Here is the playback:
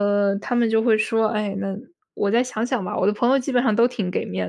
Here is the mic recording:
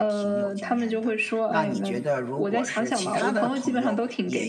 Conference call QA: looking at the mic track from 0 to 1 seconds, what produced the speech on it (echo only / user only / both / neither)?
both